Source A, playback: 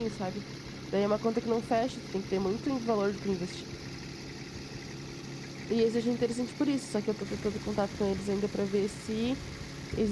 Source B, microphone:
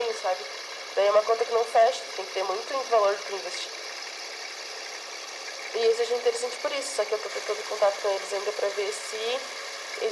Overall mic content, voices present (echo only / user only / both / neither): echo only